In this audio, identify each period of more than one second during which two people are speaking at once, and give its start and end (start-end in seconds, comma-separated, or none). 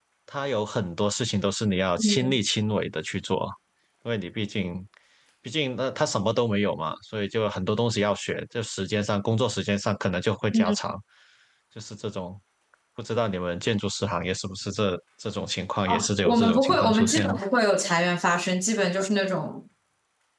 15.9-17.4